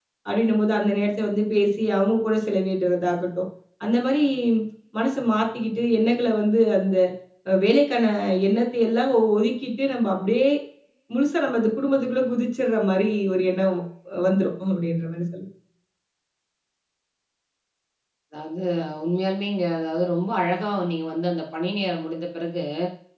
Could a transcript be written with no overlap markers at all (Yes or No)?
Yes